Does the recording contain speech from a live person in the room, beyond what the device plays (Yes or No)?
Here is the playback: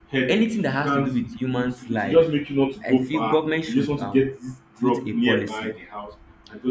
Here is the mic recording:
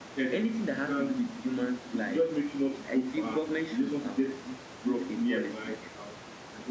No